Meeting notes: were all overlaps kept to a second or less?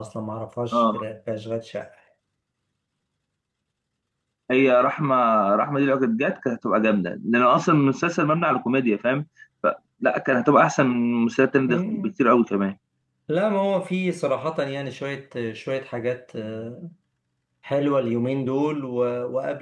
Yes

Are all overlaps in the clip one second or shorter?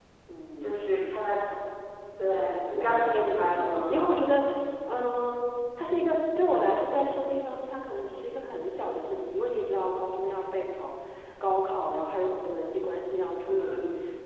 No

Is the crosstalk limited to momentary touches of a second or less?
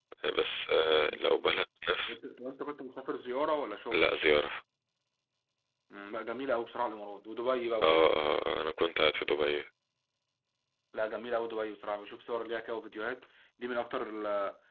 Yes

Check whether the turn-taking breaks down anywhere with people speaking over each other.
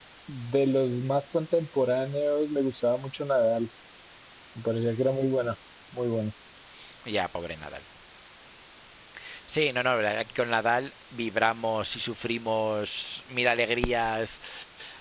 No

